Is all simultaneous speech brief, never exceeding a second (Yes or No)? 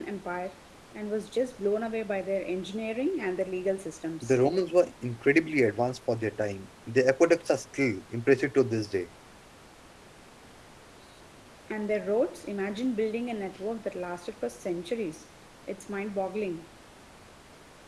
Yes